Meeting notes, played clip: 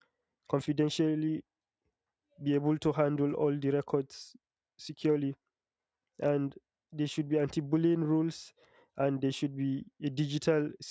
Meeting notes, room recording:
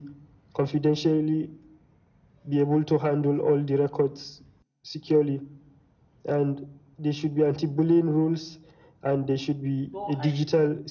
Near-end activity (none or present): present